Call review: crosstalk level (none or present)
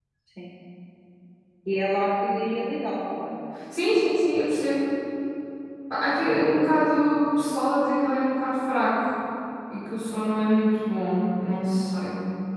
none